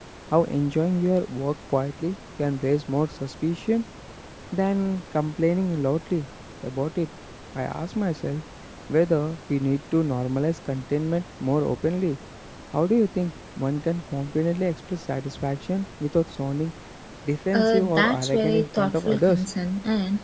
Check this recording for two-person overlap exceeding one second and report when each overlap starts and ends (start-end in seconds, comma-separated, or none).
17.5-19.4